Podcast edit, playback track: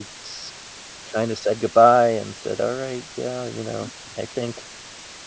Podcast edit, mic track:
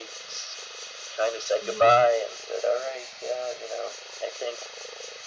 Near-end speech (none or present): present